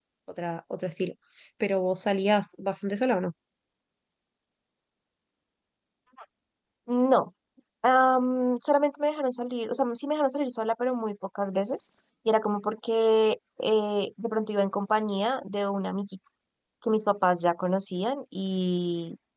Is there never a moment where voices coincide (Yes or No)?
Yes